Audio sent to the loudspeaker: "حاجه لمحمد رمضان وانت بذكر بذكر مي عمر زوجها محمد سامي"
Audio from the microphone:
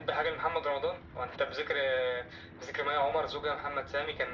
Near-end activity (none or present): none